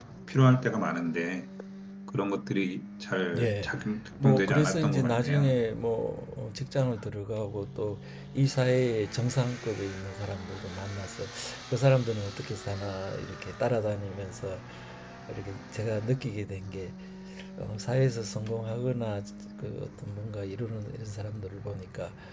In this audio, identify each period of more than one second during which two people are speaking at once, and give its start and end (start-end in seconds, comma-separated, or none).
4.2-5.6